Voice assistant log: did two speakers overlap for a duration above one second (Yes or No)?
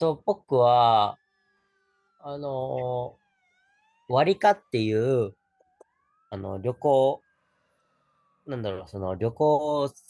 No